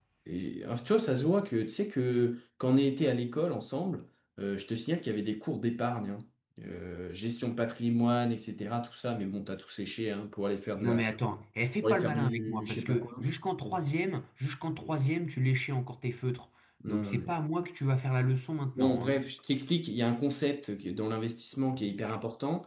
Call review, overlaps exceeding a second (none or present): present